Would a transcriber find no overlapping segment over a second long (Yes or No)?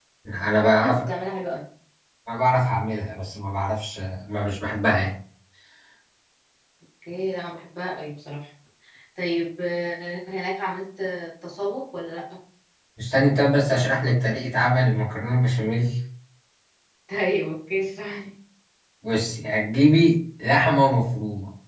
Yes